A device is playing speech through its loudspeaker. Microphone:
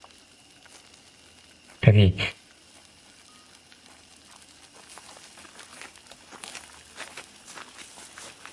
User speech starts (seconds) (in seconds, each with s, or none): 1.8 s